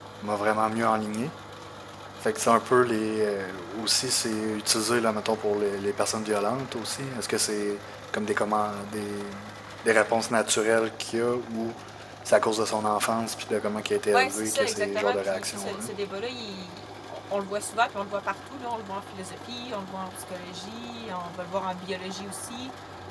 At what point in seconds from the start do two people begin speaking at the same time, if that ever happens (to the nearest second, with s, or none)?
14 s